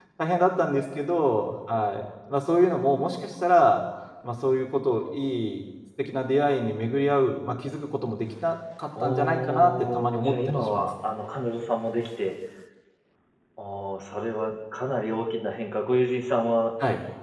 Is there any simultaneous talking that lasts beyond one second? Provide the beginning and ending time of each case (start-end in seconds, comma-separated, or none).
9.0-10.9